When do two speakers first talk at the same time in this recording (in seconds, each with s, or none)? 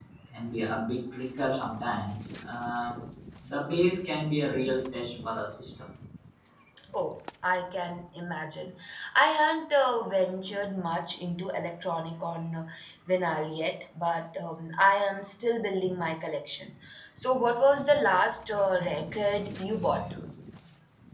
none